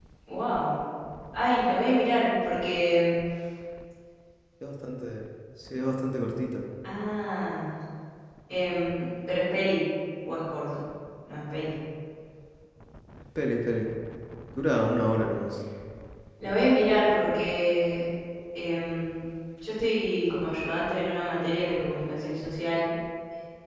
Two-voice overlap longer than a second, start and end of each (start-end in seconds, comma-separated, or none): none